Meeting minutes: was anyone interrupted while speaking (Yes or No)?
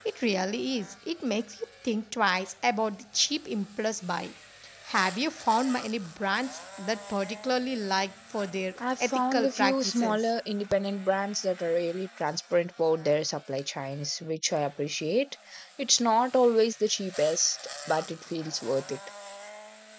Yes